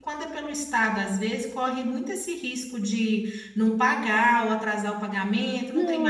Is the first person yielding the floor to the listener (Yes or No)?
Yes